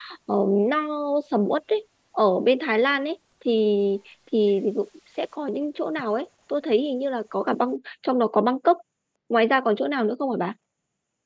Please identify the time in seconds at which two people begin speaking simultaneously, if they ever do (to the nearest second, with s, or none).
none